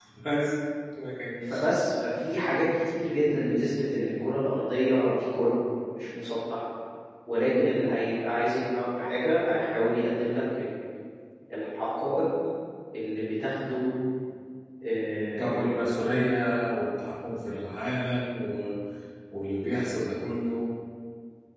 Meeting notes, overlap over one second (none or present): none